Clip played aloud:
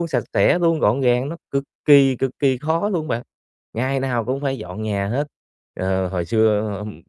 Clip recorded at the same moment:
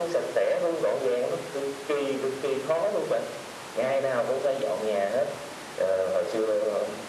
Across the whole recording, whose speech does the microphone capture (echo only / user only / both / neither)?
echo only